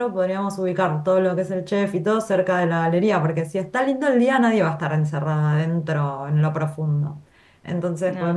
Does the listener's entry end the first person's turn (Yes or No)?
No